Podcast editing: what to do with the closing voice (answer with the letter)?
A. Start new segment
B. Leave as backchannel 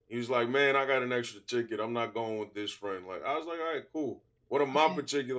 B